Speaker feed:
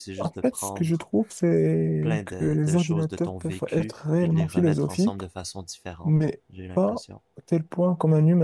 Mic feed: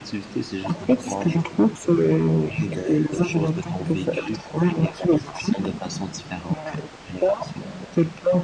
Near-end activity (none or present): none